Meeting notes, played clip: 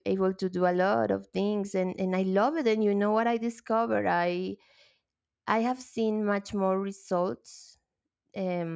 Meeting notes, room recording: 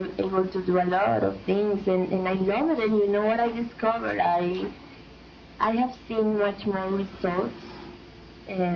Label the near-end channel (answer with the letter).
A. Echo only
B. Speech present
A